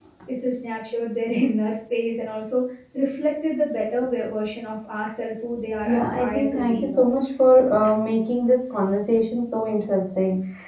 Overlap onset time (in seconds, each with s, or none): 5.8 s